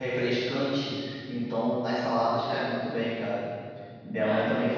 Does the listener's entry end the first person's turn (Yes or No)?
No